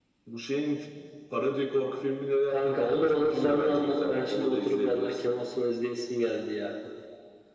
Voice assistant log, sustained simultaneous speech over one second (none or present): present